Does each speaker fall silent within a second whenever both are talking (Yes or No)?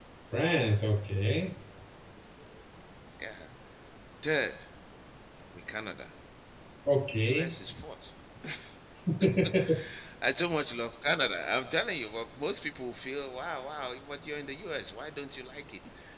Yes